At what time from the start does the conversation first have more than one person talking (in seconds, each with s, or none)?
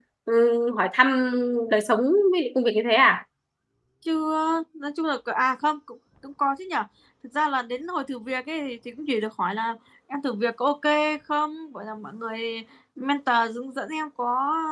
none